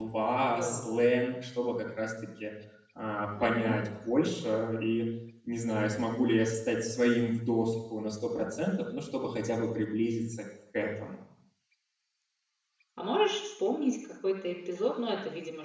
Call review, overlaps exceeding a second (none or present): none